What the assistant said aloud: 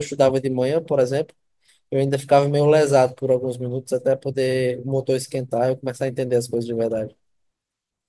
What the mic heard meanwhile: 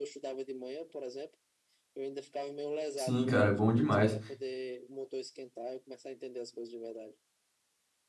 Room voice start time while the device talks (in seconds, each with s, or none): 3.0 s